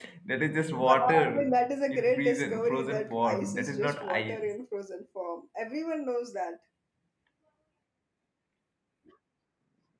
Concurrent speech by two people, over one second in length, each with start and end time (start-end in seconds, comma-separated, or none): 0.8-4.5